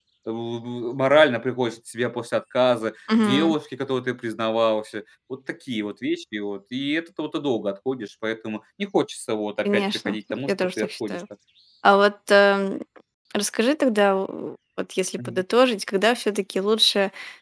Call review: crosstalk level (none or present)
present